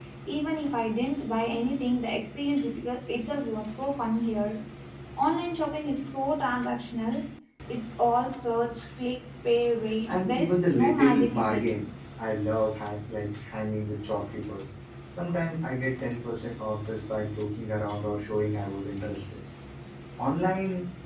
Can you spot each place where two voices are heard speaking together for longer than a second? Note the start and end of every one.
10.1-11.7

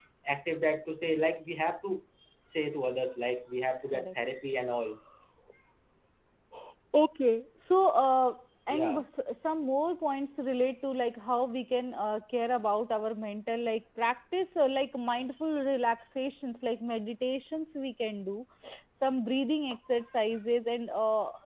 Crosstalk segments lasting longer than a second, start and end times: none

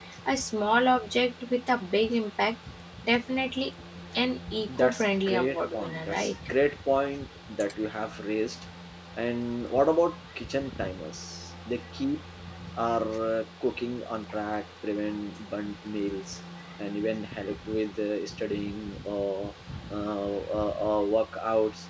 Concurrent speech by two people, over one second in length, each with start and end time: 4.8-6.3

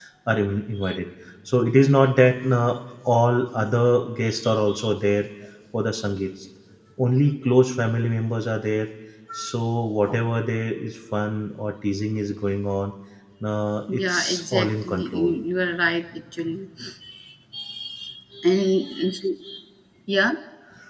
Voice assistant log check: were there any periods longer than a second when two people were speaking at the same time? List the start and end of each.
13.9-15.3

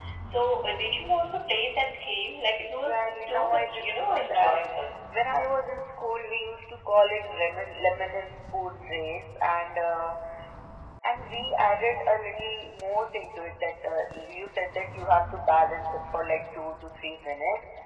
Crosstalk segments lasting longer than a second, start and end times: 2.5-4.6

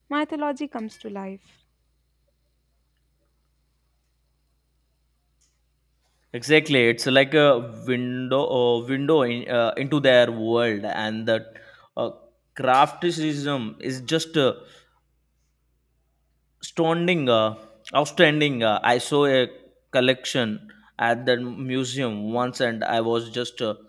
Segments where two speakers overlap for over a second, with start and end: none

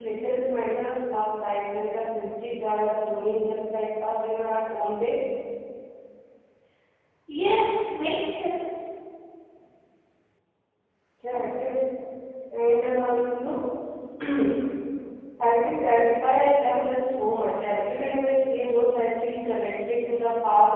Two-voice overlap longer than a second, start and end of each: none

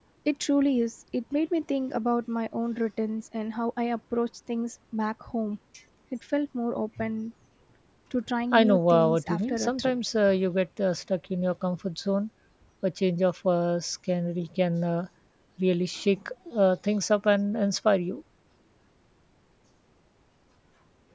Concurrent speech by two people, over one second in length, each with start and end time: 8.5-9.9

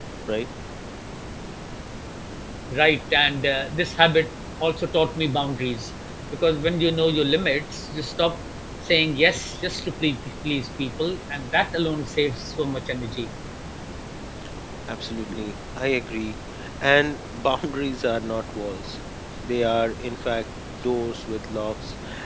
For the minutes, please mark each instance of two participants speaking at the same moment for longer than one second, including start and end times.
none

